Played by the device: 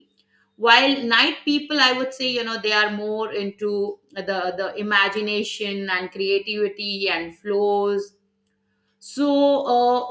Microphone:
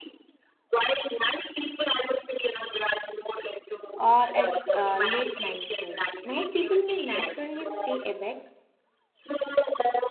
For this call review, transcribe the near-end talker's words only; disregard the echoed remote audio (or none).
or at uh, late night. So, night people may naturally stay awake